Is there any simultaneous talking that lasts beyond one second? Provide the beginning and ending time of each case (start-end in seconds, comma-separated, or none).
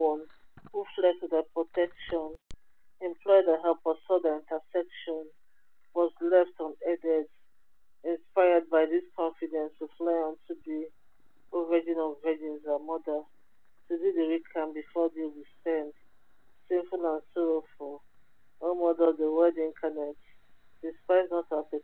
none